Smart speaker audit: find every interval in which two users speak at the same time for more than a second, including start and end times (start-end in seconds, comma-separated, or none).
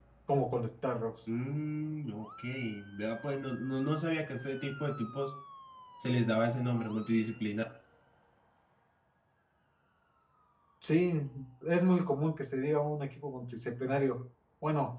none